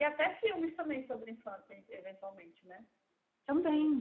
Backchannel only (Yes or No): Yes